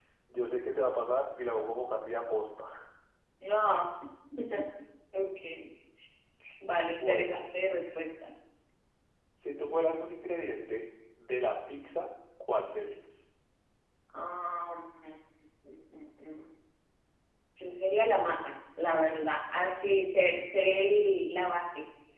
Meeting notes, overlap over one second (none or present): none